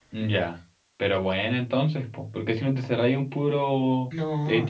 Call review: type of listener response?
listening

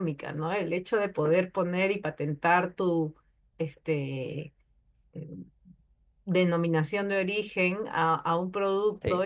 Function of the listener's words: listening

